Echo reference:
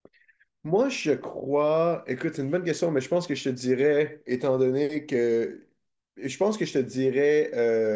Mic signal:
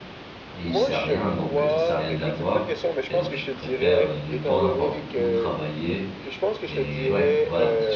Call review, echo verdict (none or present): present